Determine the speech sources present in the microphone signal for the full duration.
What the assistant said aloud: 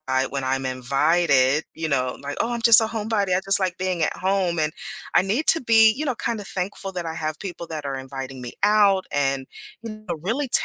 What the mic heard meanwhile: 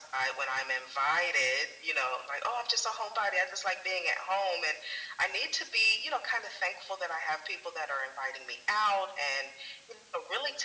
echo only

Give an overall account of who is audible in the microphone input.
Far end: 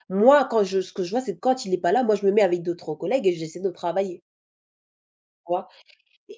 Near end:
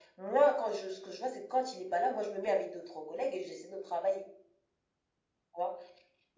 echo only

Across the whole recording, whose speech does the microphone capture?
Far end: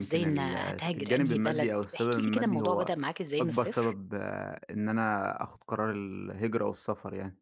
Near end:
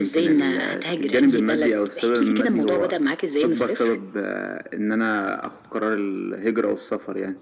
echo only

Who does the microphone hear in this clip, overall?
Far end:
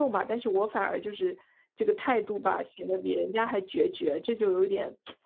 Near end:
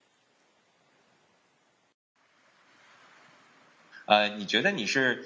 user only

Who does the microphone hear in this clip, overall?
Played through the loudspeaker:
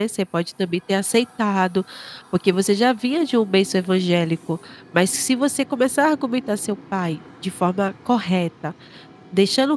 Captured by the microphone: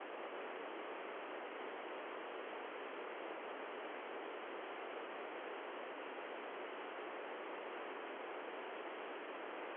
neither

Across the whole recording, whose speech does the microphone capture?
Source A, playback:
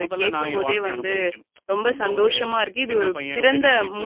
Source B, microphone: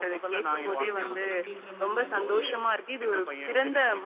both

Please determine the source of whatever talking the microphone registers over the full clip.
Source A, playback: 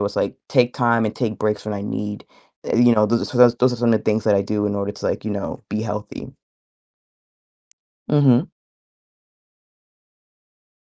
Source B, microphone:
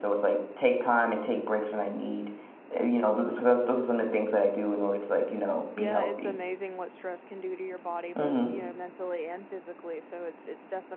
both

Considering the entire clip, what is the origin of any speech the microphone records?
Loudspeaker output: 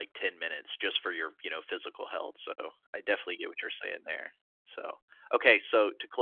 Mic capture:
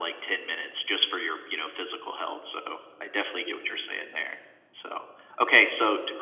echo only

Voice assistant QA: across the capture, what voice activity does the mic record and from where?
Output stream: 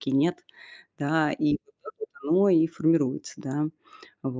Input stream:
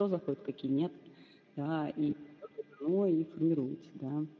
echo only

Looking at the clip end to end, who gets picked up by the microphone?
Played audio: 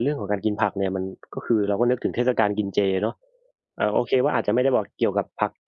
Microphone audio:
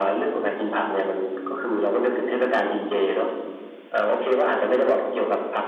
echo only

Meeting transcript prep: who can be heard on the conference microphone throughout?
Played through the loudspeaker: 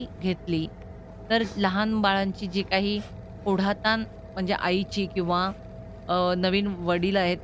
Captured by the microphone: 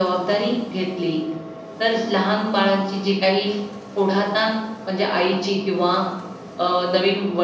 echo only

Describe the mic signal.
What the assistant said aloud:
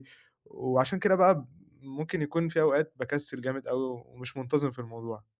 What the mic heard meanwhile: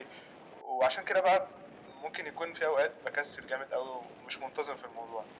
echo only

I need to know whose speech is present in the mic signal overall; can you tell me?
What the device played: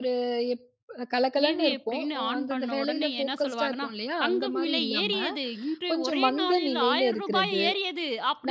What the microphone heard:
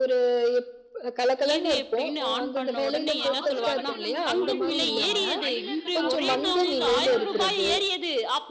both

